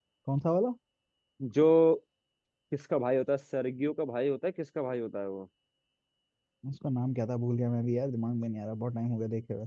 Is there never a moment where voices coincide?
Yes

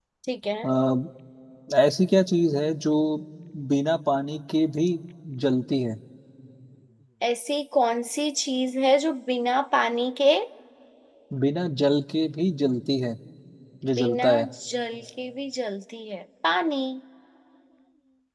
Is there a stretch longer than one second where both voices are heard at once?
No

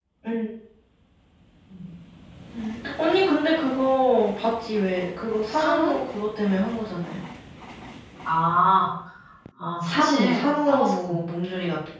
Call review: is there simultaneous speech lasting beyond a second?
Yes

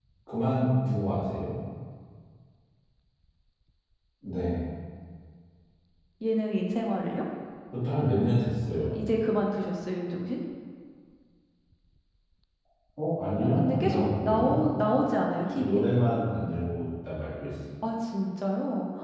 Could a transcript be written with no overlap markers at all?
No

